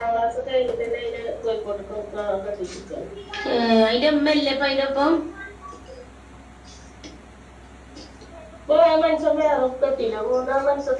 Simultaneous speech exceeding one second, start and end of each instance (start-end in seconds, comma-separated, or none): none